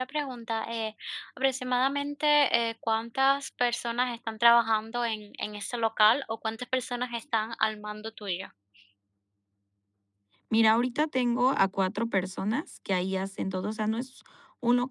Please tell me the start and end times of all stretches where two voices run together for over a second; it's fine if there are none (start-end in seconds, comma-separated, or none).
none